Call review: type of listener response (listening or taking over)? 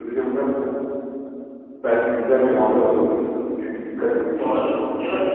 taking over